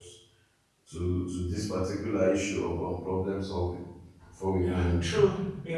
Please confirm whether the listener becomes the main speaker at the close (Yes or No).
Yes